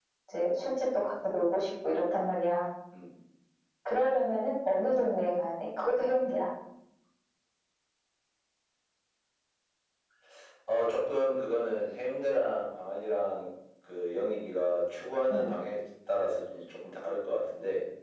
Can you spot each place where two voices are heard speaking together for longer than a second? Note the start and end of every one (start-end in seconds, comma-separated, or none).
none